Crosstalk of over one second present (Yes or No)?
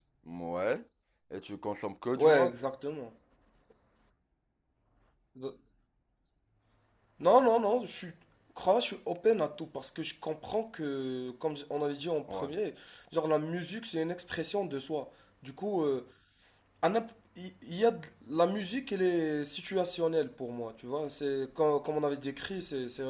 No